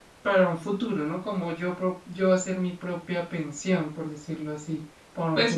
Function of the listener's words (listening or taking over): taking over